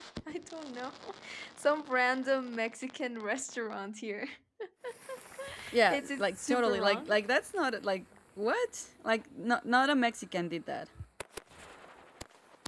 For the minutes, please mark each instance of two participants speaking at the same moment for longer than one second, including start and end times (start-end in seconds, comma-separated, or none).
5.9-7.2